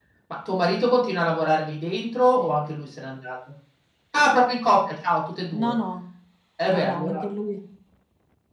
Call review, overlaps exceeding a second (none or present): none